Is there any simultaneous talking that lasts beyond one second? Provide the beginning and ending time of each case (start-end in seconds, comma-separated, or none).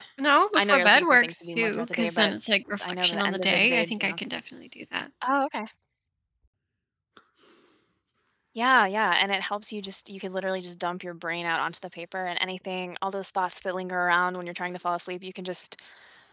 0.5-2.3, 2.8-4.2